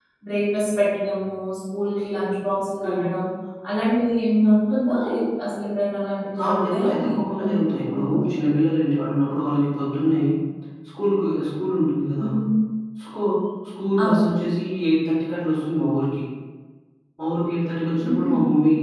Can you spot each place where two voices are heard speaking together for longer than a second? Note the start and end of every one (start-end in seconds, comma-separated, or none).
6.4-8.2